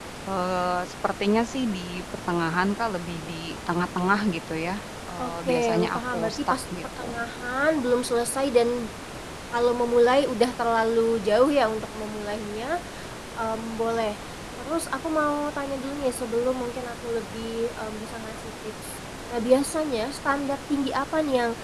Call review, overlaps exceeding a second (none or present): present